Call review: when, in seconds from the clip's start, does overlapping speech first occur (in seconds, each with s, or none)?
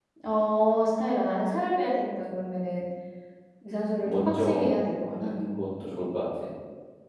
4.0 s